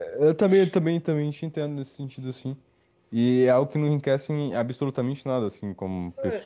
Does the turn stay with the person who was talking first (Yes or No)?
No